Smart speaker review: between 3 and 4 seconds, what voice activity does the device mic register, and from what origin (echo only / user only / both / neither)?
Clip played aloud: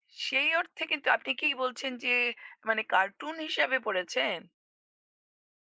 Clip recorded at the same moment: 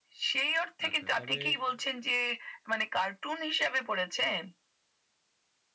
echo only